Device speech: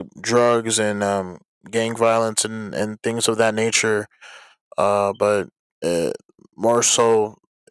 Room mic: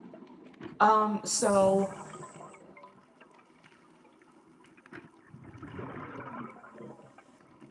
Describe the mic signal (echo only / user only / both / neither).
user only